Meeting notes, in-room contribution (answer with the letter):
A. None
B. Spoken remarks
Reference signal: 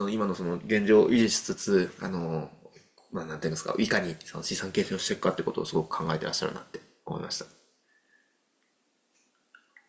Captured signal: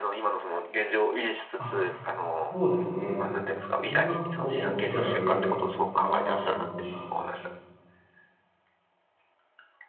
B